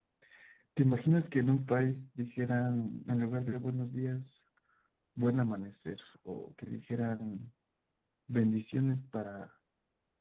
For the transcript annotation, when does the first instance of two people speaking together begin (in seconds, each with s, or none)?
none